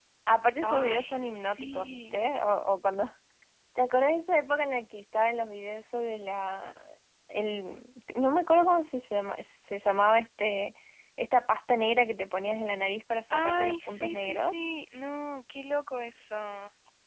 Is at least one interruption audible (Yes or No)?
Yes